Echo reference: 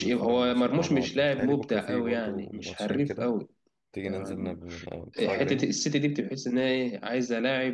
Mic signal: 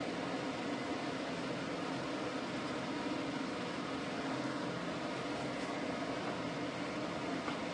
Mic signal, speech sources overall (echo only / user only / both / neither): neither